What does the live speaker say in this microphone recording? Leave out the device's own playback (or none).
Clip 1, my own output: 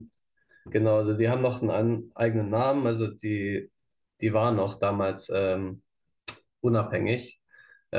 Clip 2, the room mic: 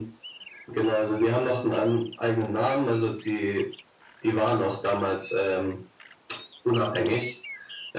none